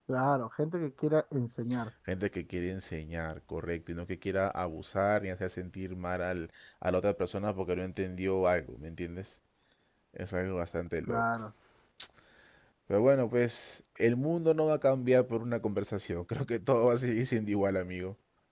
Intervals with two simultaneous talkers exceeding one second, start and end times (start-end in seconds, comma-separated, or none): none